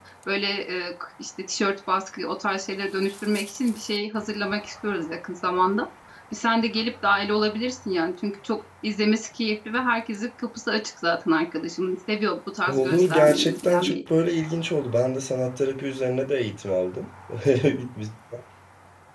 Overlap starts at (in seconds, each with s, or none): 12.7 s